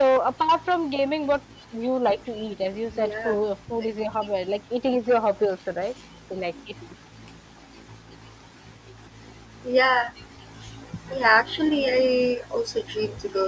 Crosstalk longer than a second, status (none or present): none